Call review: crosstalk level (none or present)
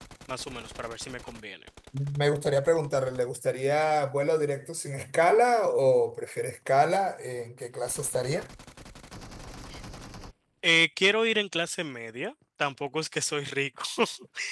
none